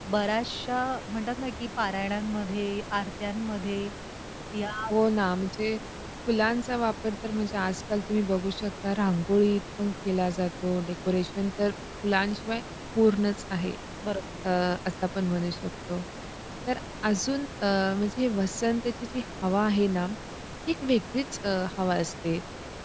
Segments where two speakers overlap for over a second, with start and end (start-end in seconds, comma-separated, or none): none